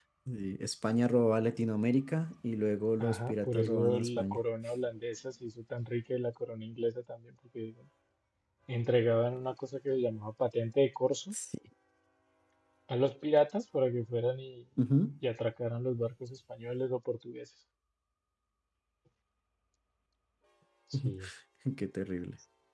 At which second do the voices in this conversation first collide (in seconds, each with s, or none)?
3.0 s